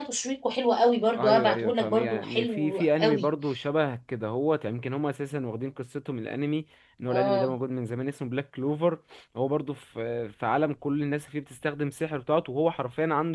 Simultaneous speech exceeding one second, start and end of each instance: 1.1-3.3

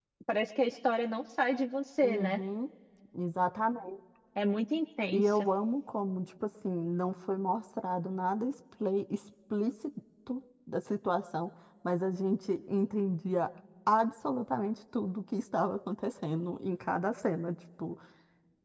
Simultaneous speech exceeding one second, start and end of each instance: none

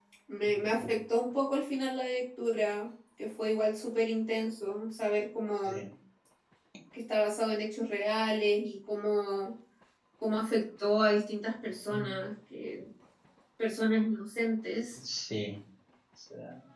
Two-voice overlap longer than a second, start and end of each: none

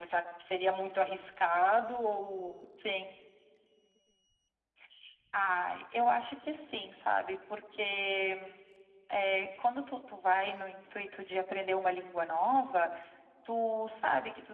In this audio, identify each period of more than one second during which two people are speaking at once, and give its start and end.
none

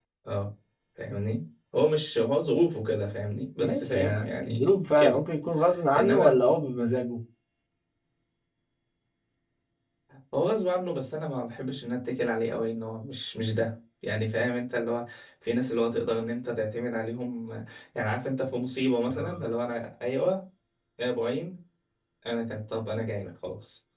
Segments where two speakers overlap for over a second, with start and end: 3.6-5.2

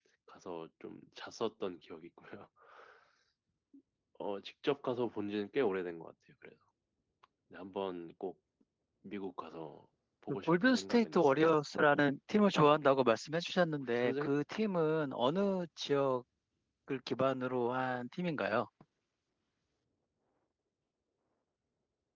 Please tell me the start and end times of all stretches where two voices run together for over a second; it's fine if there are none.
10.3-11.5

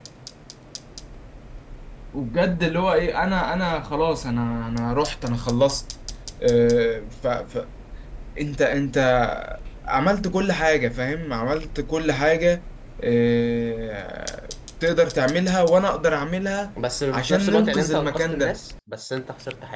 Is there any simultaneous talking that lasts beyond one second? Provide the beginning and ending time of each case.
17.1-18.6

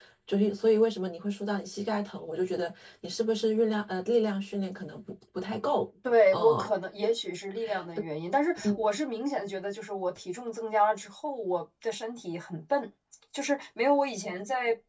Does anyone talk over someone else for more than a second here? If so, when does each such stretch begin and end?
none

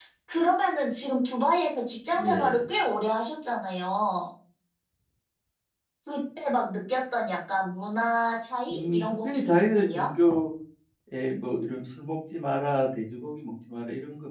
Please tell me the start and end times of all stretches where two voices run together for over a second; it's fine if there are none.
8.7-10.1

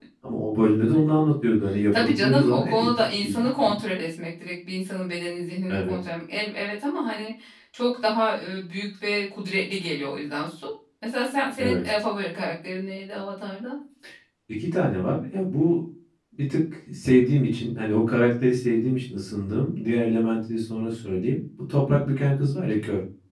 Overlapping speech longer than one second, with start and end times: 2.0-3.7

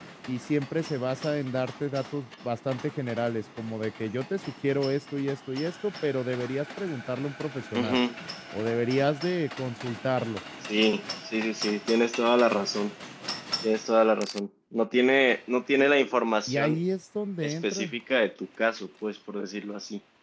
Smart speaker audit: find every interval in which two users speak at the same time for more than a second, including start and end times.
none

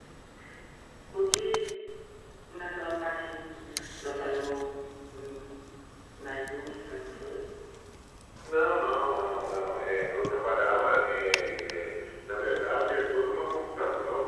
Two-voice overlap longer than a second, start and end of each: none

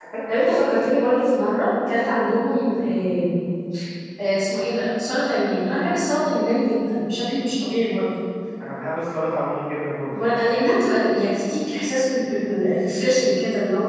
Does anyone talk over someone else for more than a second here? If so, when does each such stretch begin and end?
none

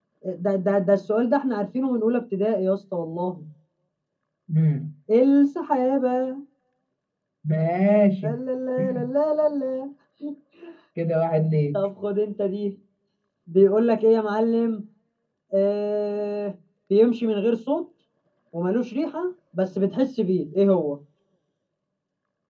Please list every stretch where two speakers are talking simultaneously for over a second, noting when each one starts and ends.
none

